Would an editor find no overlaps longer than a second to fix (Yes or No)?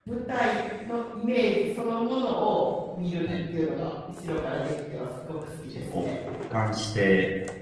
Yes